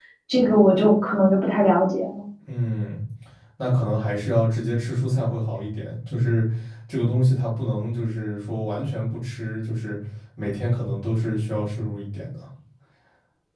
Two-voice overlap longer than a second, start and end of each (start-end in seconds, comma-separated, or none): none